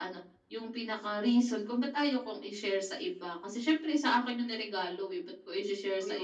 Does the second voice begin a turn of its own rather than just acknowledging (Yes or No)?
Yes